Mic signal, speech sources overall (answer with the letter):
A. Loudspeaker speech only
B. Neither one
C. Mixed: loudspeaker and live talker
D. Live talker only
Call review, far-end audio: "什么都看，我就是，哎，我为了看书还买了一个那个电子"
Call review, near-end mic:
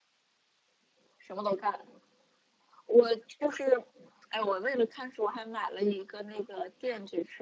A